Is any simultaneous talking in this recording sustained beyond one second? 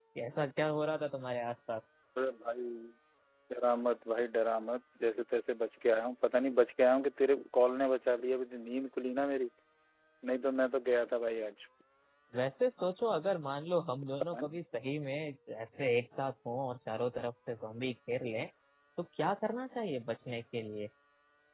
No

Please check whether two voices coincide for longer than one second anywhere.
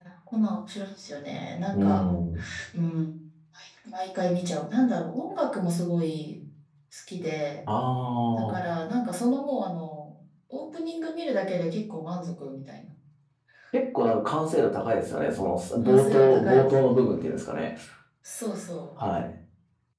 Yes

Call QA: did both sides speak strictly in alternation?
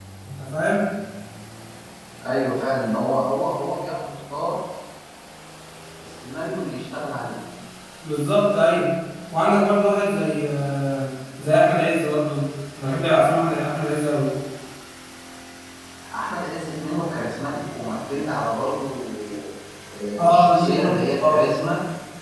No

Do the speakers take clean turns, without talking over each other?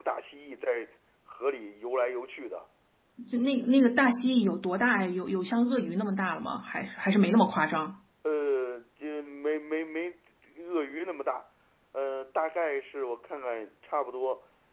Yes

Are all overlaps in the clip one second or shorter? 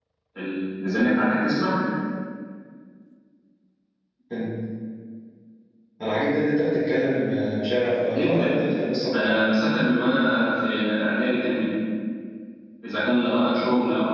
Yes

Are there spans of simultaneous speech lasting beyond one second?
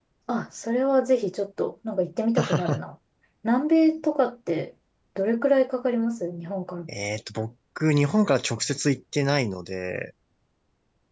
No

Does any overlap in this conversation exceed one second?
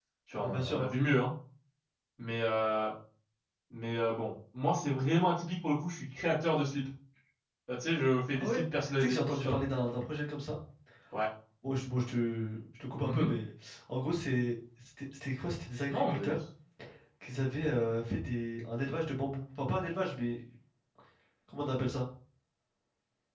Yes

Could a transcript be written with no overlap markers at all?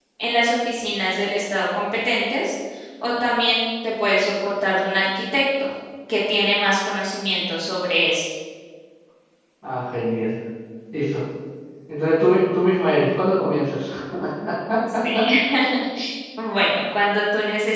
Yes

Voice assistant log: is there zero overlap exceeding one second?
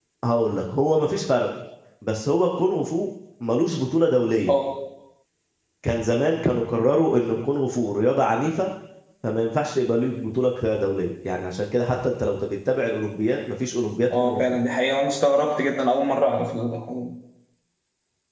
Yes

